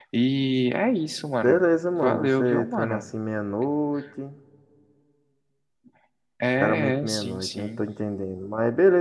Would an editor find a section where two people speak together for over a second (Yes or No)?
Yes